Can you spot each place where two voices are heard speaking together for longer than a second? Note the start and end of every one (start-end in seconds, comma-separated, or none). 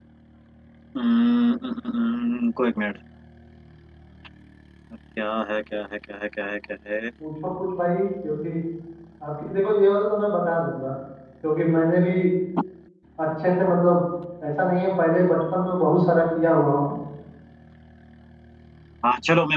none